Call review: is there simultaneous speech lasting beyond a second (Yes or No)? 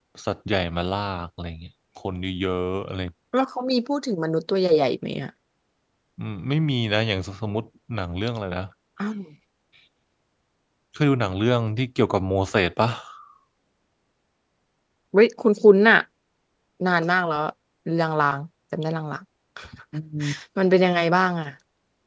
No